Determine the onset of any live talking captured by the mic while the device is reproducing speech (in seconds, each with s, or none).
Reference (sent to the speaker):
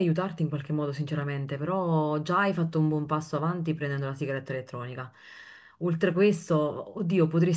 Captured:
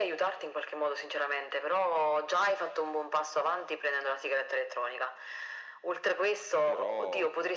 6.6 s